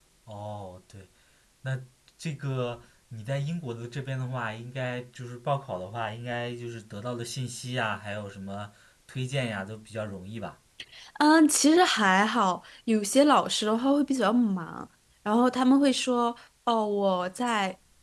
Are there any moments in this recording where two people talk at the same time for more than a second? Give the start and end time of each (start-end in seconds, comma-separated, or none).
none